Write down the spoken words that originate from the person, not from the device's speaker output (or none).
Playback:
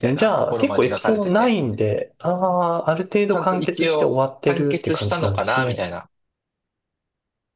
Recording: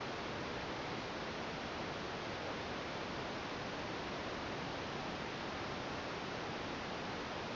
none